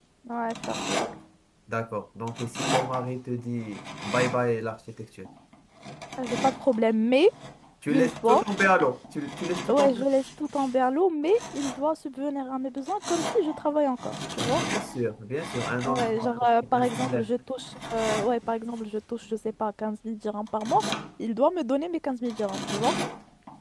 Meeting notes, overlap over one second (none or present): present